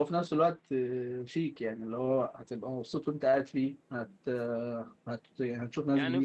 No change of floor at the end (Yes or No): No